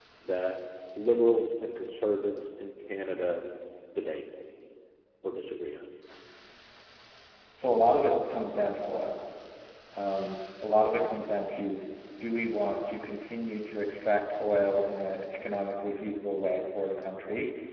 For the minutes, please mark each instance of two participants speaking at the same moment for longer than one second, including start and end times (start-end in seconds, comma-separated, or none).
none